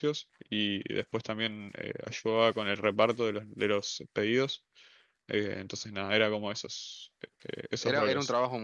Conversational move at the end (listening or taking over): taking over